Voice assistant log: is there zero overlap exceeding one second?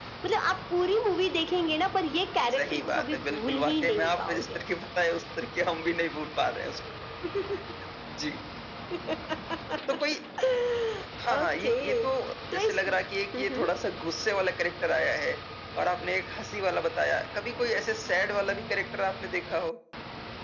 No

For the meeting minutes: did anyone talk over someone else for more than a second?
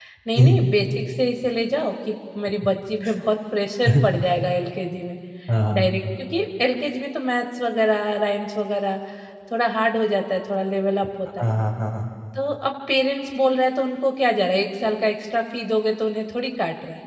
No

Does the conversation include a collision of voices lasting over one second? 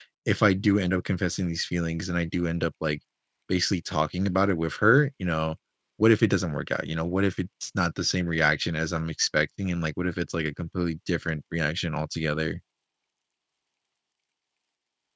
No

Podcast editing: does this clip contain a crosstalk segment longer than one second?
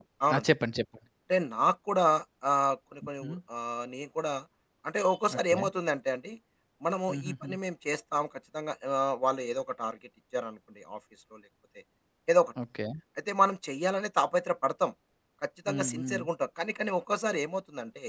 No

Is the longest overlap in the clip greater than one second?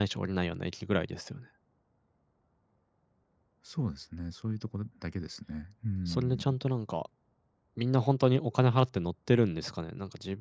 No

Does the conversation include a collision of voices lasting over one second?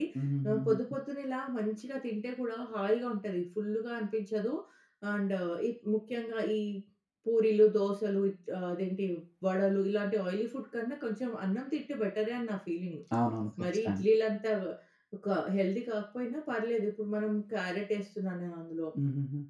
No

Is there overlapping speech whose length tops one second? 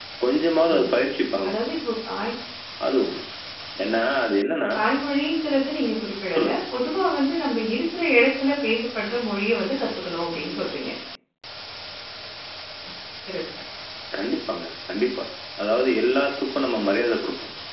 No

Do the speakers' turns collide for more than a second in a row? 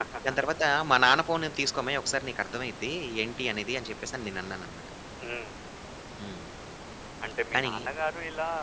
No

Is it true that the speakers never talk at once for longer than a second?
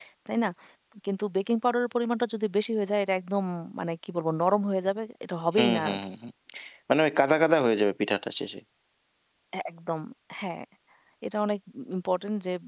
Yes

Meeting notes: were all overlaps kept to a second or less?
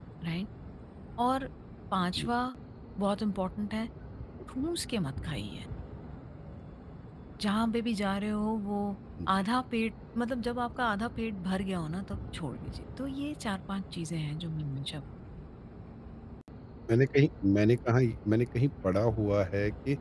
Yes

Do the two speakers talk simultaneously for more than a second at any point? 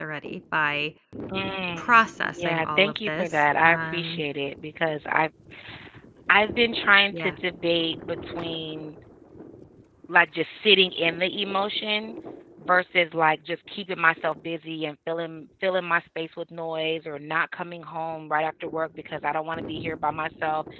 Yes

